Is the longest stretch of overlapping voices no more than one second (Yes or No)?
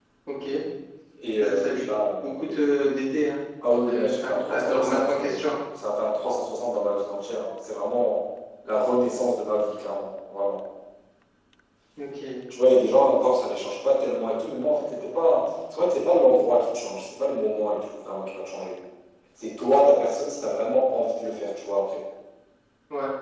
No